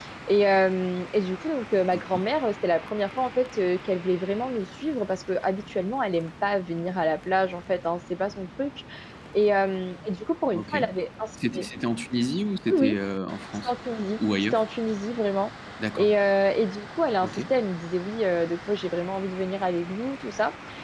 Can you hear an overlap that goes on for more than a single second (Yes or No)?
No